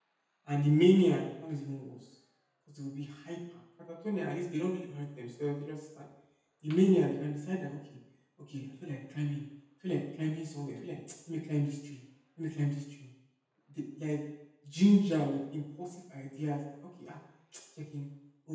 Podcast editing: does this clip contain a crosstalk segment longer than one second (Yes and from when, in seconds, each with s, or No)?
No